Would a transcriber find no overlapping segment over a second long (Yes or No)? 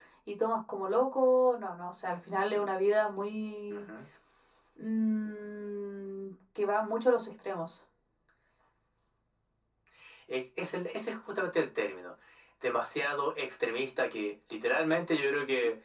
Yes